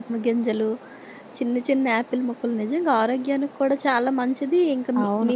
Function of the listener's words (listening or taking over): listening